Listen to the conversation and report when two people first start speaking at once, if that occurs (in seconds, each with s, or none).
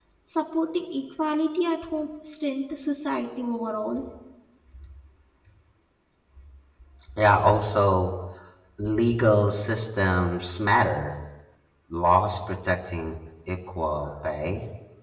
none